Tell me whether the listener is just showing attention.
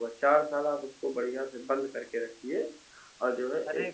No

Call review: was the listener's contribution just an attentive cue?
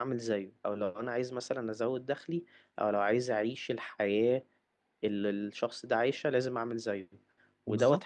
Yes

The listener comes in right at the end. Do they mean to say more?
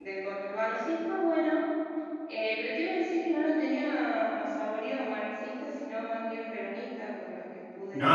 Yes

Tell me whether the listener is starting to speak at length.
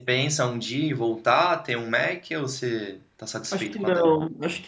Yes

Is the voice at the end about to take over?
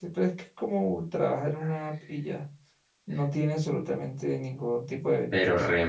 Yes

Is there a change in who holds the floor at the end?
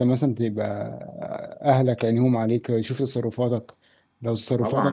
Yes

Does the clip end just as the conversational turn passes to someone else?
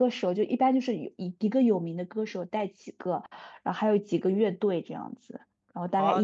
Yes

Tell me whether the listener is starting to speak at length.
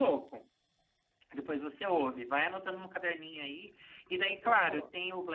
No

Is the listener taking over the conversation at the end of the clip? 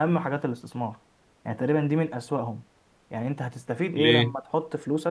No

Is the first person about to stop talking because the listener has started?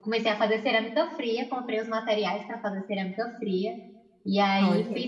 No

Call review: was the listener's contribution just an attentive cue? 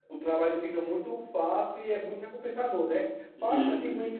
Yes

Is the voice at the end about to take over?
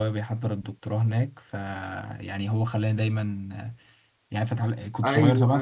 Yes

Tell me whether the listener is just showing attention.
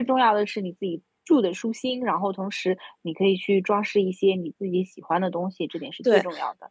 No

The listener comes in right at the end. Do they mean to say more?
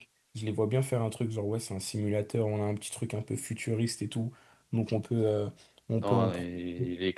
Yes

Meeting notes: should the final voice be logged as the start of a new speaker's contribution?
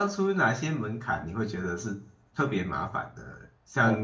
No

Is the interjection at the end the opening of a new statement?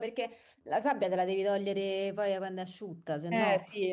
Yes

